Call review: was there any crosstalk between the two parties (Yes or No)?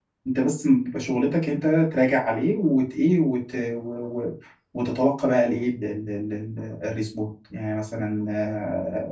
No